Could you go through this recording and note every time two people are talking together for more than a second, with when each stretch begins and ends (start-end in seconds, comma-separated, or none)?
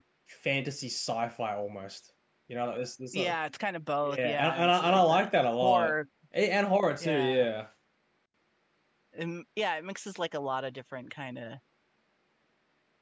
4.0-6.0